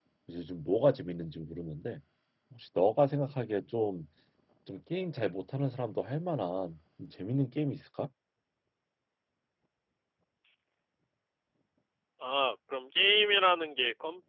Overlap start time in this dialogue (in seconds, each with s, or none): none